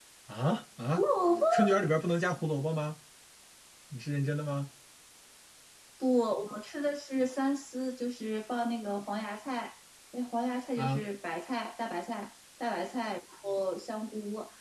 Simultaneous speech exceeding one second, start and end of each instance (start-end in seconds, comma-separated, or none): none